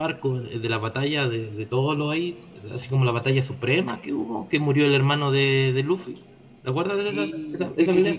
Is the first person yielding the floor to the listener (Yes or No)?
Yes